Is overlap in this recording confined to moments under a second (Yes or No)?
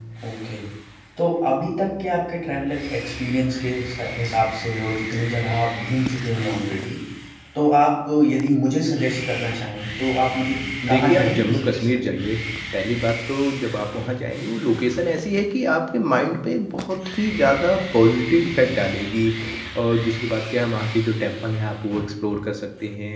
No